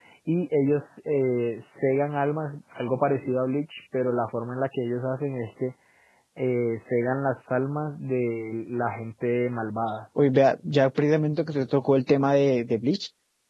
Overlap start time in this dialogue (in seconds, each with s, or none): none